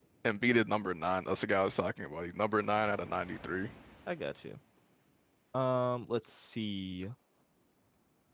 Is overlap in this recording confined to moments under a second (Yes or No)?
Yes